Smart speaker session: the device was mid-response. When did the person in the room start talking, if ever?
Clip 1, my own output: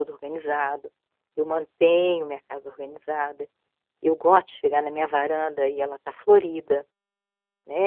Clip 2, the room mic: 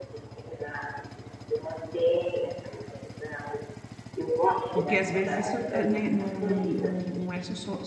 4.7 s

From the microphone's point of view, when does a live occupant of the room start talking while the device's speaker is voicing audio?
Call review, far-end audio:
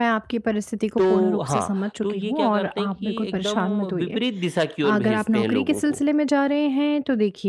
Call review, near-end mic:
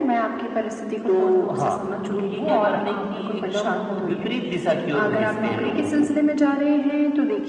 none

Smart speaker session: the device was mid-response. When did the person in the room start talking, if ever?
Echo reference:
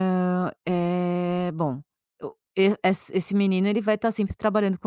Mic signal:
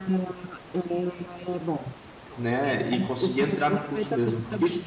2.4 s

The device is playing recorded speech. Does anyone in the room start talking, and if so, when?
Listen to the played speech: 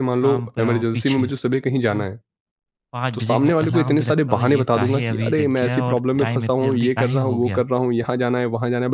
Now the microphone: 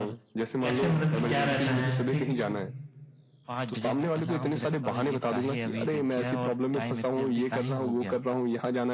0.6 s

